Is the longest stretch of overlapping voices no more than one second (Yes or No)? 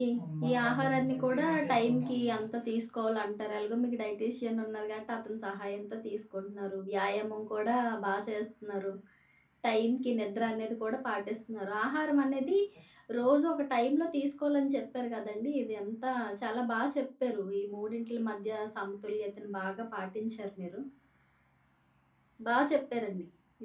No